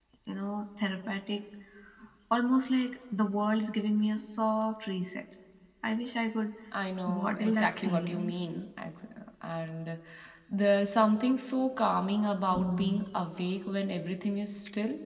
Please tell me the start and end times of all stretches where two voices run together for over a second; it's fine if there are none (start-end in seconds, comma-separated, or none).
7.1-8.3